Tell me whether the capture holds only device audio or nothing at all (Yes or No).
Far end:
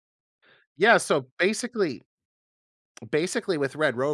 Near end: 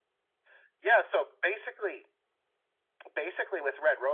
Yes